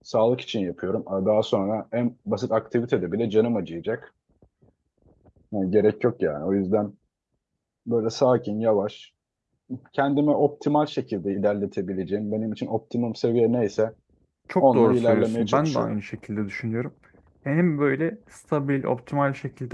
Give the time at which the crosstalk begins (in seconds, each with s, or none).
14.6 s